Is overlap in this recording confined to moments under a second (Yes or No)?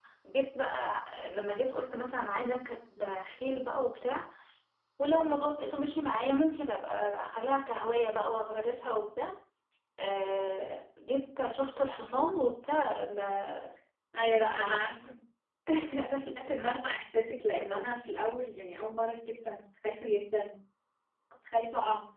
Yes